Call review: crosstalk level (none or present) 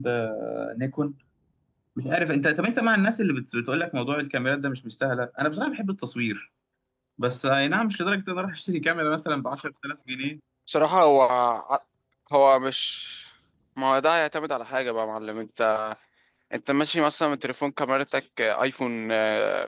none